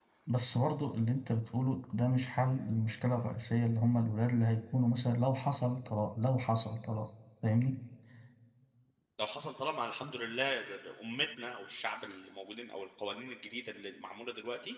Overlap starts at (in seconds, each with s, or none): none